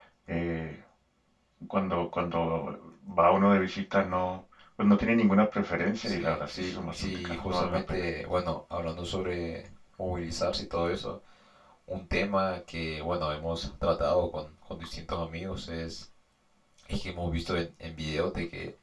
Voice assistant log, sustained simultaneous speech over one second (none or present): present